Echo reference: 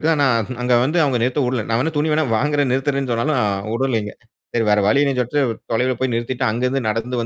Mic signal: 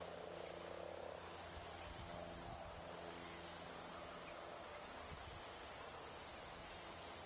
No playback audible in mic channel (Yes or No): Yes